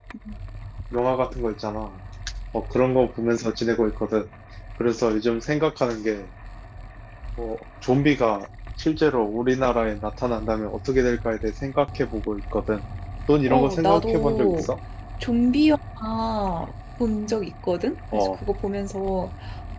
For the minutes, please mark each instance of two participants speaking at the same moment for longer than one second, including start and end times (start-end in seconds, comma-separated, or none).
13.5-14.7